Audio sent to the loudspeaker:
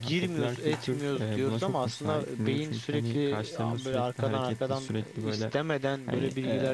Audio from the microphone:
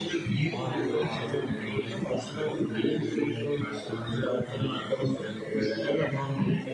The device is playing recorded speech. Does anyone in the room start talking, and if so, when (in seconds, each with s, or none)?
0.4 s